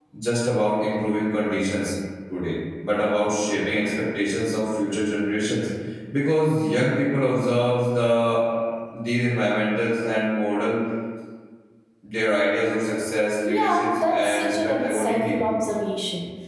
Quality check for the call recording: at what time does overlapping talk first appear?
13.5 s

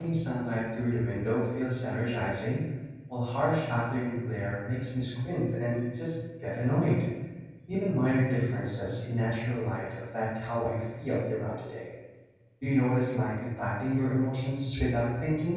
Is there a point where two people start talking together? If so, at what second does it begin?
none

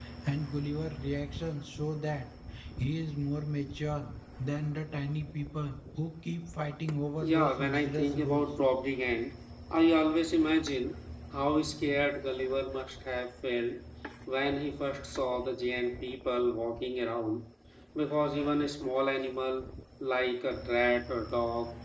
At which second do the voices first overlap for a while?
7.2 s

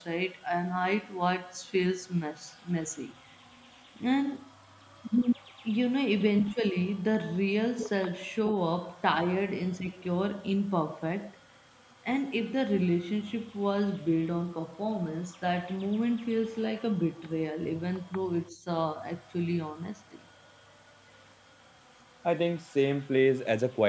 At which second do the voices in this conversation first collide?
none

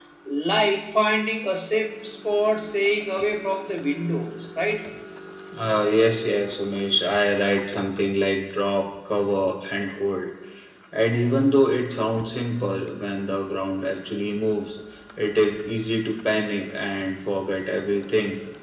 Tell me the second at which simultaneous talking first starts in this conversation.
none

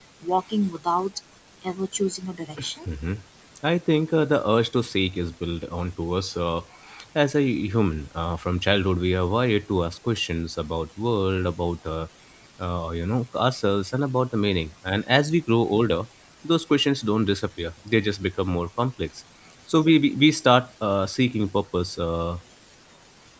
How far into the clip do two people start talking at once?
none

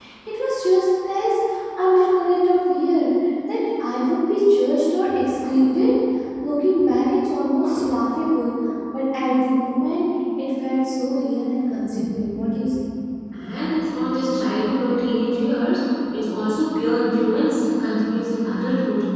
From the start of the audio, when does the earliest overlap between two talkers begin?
none

